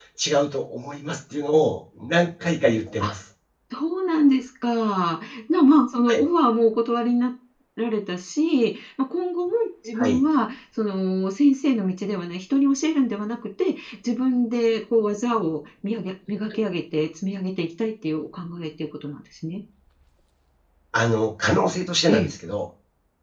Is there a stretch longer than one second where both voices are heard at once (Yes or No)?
No